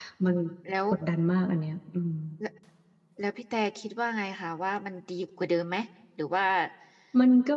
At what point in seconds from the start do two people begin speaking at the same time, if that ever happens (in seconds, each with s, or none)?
none